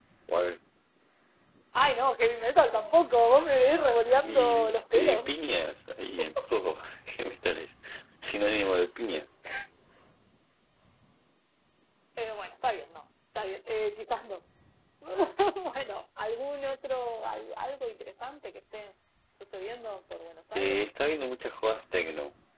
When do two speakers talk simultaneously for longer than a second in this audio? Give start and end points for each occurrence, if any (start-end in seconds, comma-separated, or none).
4.2-5.4